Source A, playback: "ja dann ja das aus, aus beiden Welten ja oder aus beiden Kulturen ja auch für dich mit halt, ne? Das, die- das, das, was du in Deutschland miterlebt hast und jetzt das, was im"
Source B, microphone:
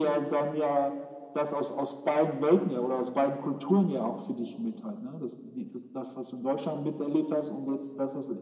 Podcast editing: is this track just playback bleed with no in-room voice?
Yes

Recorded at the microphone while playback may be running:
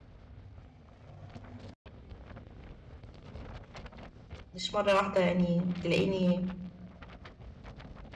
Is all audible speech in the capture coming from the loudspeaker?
No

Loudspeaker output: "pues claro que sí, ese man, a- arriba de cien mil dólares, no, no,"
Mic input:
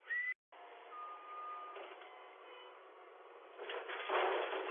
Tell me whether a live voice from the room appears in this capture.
No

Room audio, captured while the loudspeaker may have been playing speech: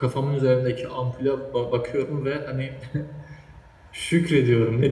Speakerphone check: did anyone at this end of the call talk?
Yes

